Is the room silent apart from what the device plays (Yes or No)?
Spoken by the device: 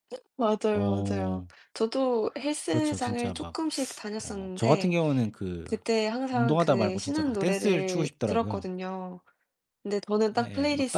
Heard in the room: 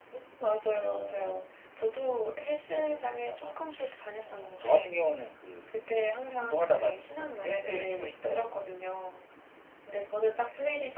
Yes